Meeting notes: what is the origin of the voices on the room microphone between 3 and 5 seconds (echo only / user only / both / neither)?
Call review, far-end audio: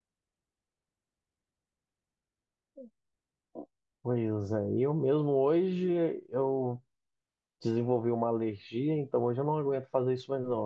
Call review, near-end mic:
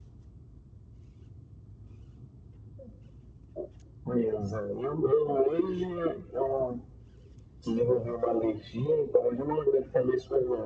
echo only